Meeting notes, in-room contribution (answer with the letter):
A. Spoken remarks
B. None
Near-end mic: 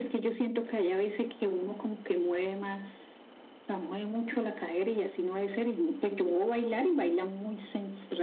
B